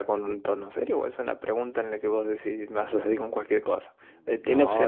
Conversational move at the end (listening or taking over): taking over